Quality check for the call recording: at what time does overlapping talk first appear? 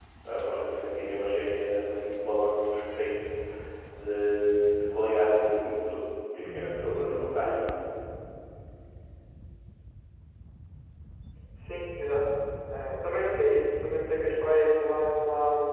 none

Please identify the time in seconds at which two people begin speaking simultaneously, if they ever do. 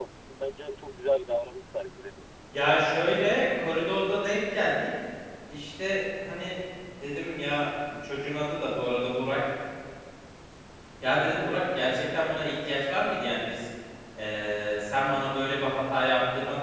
none

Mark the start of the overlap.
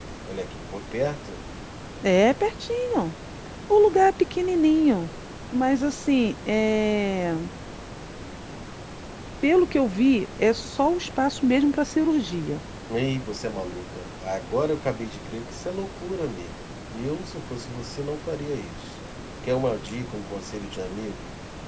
none

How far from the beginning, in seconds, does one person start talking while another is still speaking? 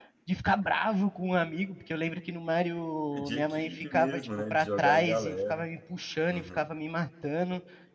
3.1 s

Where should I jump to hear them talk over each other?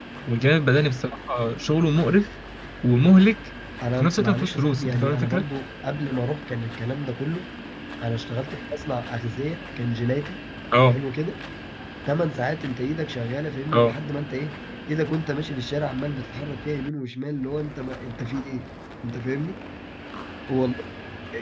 3.8 s

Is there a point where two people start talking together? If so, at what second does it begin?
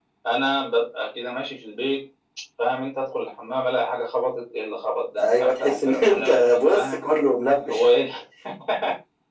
5.2 s

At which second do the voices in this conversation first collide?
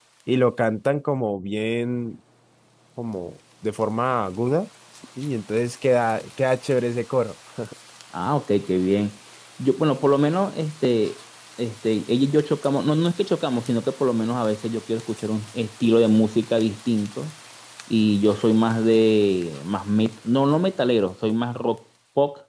none

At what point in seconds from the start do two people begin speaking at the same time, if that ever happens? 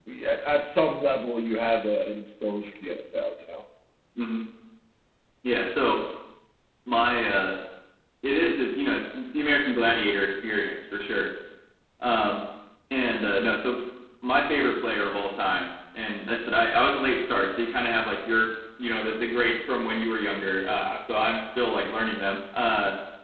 none

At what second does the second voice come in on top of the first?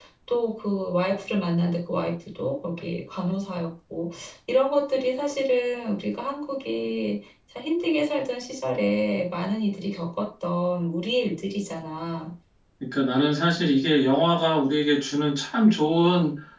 none

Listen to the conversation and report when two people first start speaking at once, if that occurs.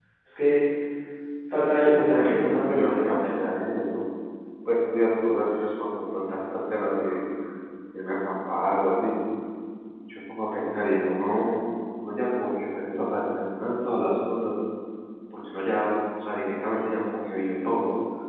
1.7 s

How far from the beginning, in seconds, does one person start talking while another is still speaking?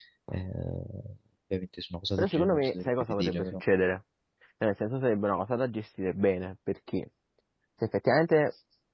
2.2 s

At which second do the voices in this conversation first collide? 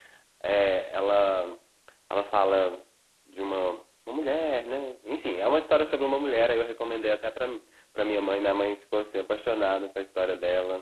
none

